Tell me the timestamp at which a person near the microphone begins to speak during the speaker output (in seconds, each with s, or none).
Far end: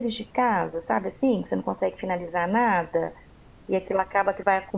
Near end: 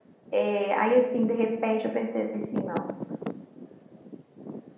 0.3 s